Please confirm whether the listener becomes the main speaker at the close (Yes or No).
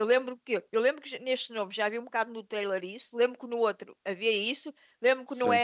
No